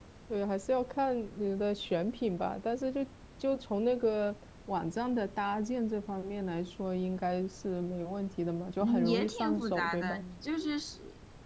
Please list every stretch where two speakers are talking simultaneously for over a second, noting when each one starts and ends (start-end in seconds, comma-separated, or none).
8.8-10.2